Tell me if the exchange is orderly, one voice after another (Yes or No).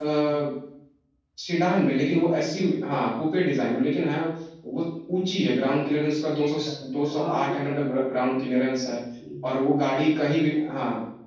No